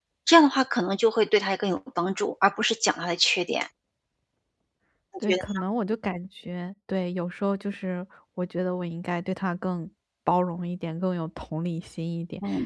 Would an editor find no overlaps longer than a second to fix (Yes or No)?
Yes